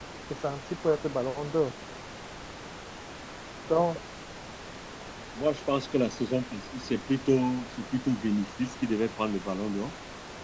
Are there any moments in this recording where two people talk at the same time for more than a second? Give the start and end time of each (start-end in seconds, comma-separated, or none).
none